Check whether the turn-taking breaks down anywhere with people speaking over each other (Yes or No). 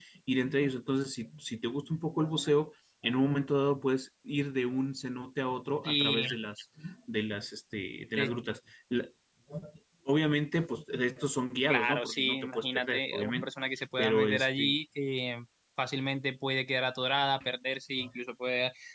Yes